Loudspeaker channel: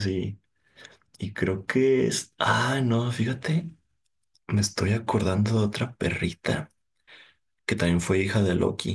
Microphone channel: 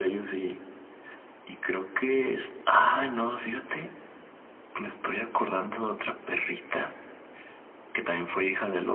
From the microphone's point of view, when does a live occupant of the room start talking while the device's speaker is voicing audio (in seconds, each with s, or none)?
none